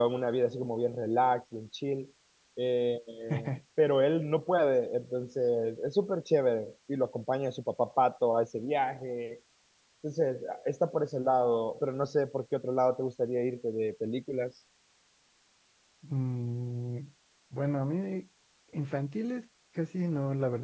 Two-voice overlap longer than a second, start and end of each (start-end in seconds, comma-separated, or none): none